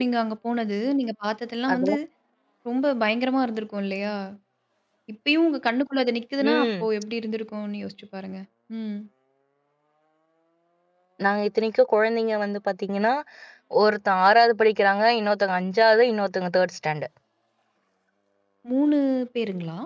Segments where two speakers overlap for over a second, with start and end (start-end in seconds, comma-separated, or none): none